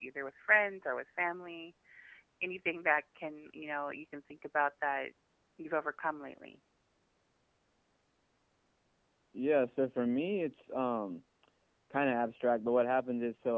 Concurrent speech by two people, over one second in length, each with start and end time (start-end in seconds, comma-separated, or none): none